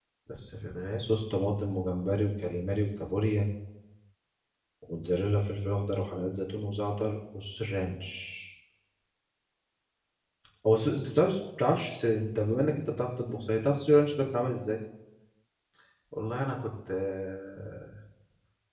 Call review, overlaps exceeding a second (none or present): none